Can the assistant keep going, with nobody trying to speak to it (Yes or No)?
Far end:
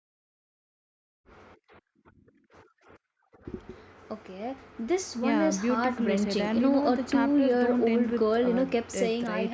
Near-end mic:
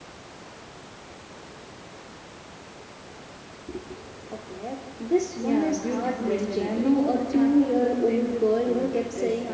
Yes